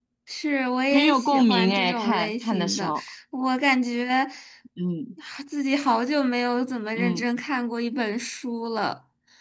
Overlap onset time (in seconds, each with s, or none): 0.9 s